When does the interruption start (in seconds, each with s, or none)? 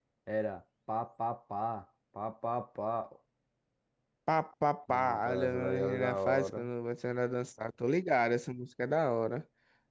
4.9 s